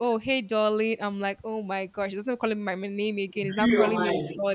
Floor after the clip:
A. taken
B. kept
B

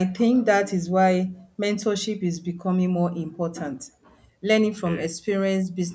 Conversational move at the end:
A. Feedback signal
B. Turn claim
A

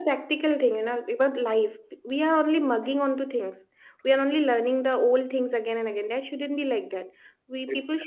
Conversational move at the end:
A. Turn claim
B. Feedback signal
B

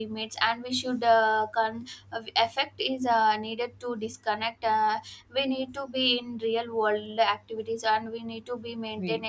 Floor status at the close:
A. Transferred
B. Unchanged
B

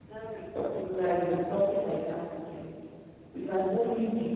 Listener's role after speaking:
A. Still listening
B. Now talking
A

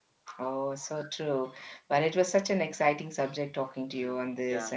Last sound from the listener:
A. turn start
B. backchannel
B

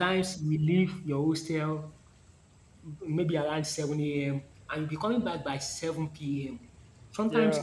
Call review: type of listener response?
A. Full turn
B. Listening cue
B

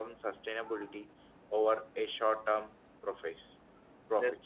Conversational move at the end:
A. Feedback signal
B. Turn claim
B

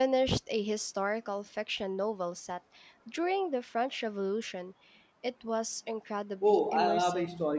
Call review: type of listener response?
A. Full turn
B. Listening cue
A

